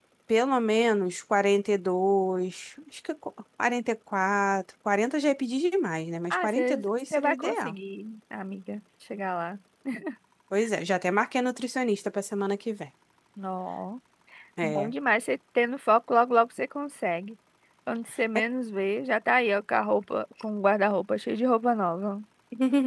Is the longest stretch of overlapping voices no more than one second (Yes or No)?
No